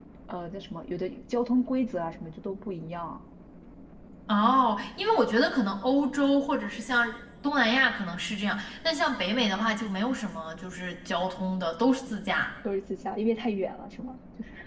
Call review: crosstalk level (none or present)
none